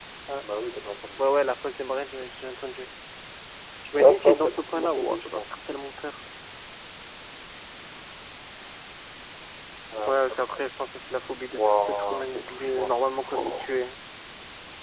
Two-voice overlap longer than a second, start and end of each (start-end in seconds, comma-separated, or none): 4.0-5.4, 11.5-13.0